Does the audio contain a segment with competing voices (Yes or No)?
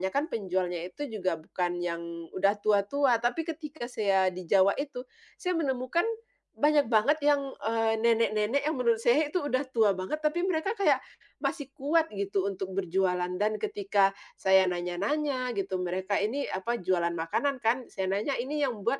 No